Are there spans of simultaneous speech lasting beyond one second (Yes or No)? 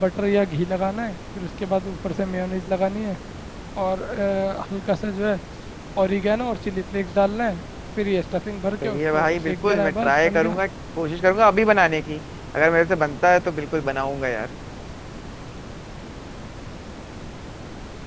Yes